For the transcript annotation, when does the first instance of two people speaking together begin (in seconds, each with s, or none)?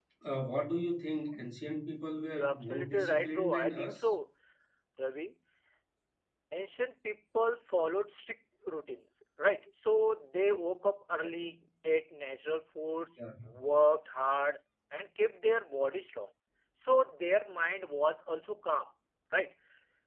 2.4 s